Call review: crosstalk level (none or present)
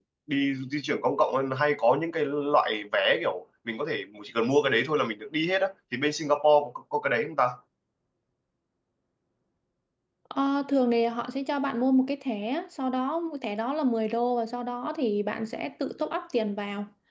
none